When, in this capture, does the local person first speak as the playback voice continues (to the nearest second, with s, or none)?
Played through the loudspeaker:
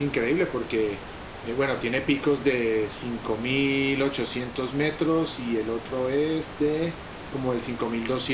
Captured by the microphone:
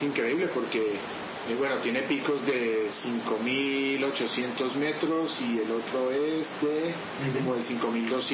7 s